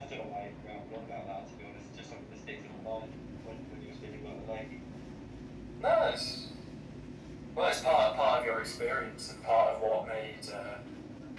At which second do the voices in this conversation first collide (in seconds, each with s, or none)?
none